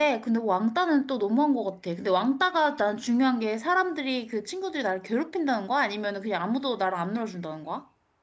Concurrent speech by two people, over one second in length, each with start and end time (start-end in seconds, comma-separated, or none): none